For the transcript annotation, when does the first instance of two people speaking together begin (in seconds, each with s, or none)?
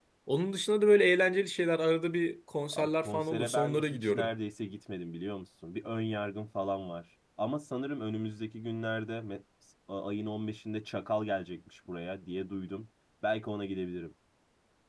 2.7 s